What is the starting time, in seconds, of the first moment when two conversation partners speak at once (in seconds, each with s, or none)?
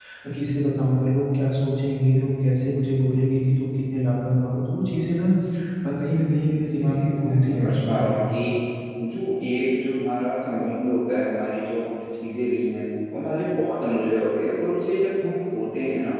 6.5 s